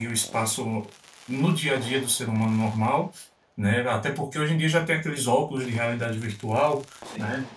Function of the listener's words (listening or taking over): listening